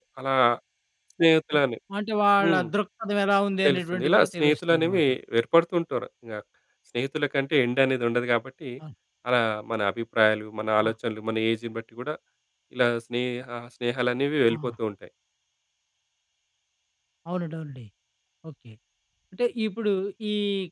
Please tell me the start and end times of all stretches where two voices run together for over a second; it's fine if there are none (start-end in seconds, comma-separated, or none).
3.7-5.0